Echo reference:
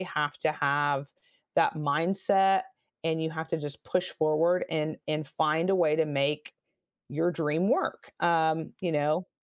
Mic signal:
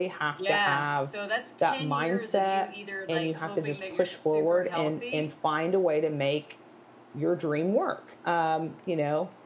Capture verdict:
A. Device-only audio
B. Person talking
B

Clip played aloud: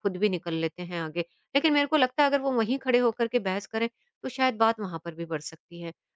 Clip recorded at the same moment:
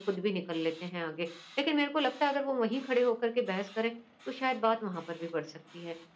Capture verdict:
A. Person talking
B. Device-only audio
B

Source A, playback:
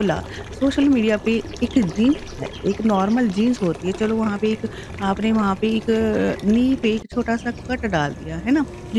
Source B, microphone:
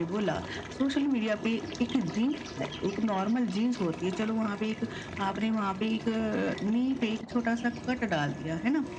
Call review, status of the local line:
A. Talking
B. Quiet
B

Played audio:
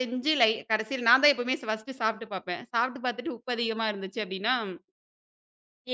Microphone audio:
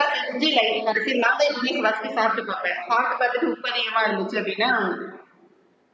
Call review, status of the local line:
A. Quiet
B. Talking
A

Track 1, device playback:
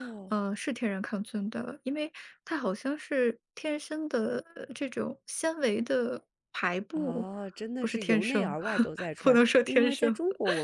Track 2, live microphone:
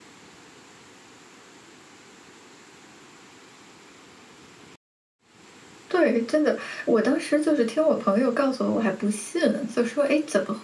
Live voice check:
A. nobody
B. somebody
B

